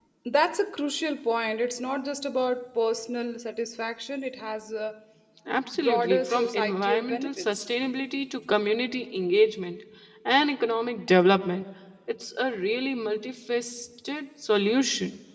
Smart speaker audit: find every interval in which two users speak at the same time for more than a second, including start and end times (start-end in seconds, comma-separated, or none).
5.7-7.7